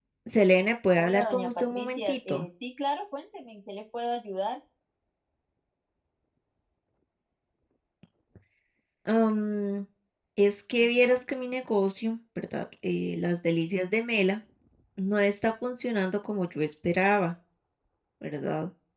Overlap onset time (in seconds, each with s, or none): 1.0 s